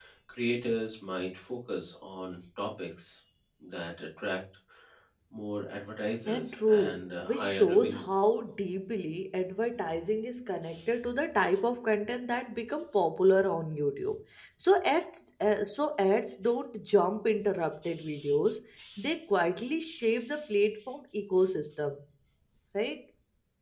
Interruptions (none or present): present